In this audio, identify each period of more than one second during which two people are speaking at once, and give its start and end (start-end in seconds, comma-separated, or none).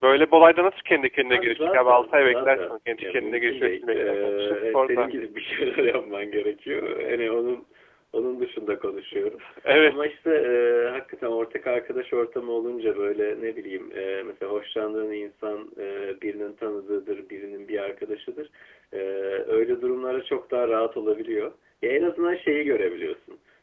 1.3-5.1